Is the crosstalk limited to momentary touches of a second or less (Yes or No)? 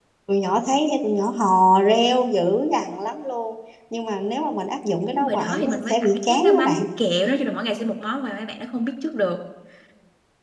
No